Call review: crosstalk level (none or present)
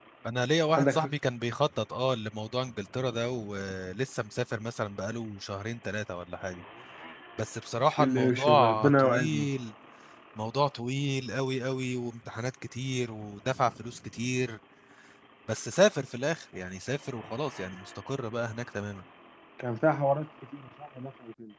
present